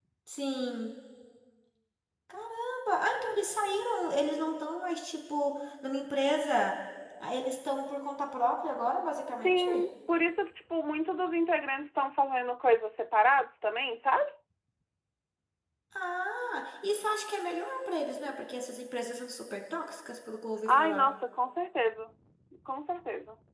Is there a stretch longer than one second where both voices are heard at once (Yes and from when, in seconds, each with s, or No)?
No